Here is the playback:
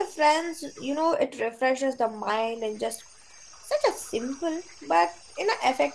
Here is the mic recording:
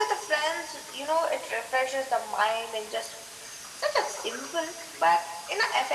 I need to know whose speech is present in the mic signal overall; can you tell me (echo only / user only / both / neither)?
echo only